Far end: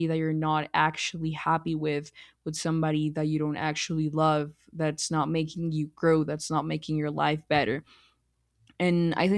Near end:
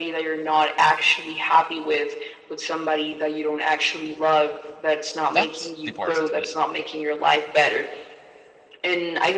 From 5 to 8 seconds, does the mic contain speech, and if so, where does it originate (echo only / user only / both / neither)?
both